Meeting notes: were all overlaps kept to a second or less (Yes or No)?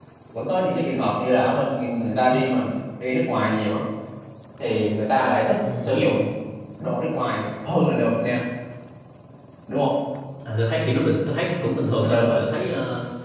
Yes